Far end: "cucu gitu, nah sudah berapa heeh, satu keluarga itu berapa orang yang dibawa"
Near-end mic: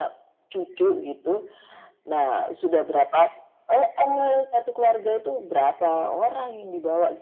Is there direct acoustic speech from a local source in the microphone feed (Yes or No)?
No